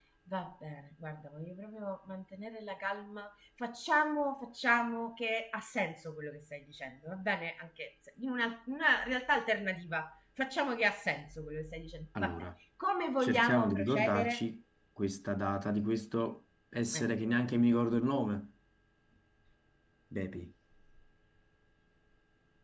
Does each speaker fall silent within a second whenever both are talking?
No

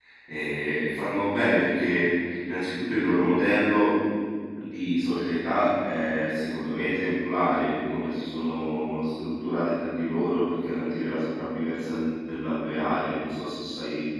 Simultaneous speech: No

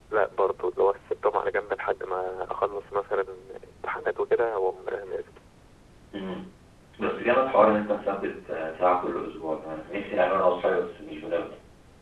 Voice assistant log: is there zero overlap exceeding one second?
Yes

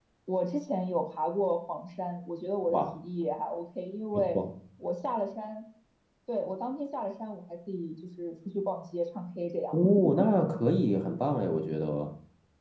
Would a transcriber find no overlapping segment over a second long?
Yes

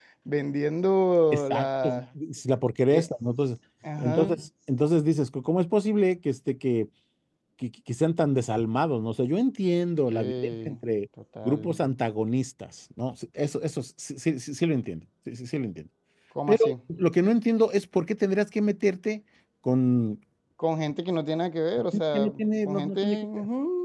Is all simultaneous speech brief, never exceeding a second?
No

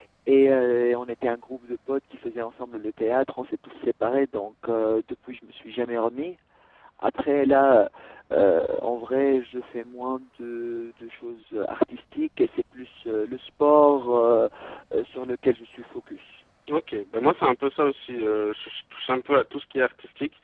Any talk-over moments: No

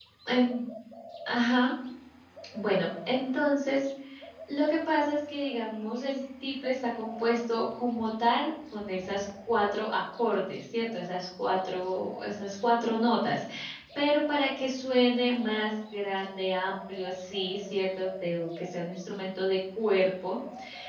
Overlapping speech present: No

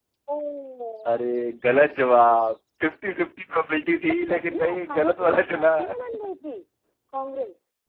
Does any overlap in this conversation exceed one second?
Yes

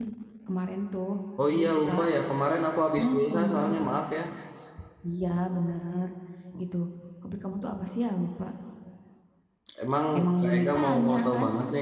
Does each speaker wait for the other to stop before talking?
No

